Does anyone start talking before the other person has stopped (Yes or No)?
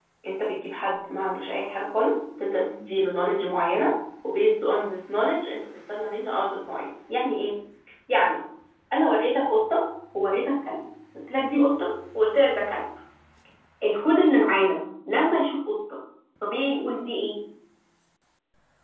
No